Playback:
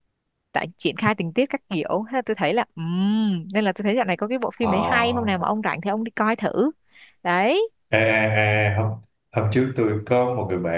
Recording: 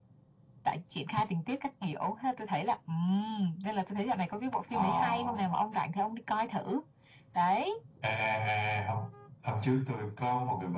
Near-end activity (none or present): none